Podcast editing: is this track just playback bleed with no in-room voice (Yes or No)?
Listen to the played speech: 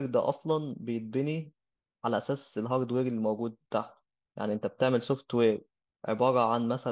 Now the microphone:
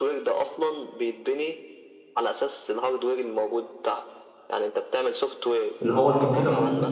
No